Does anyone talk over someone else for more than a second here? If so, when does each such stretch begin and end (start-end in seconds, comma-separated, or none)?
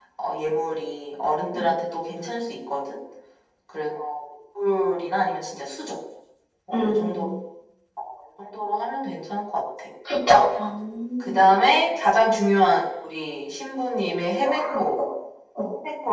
none